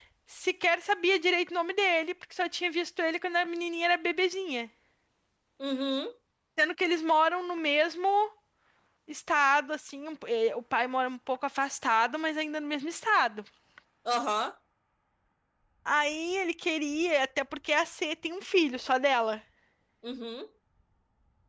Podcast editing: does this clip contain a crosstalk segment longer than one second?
No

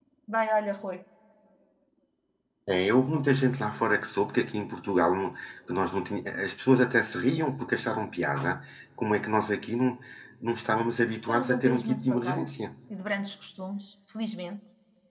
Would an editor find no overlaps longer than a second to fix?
No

